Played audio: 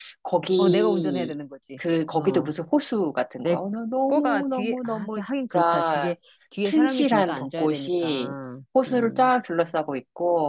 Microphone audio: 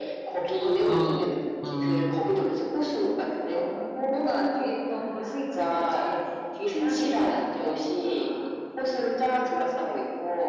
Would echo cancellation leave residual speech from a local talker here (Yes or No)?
Yes